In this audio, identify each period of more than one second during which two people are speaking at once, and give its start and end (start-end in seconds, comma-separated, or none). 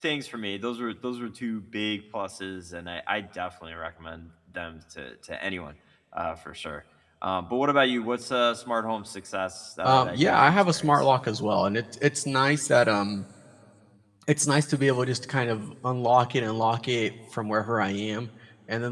9.8-11.0